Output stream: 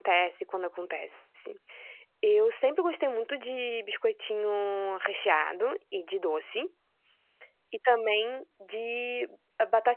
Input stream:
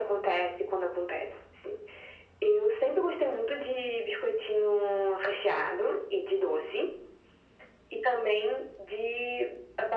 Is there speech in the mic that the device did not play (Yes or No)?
No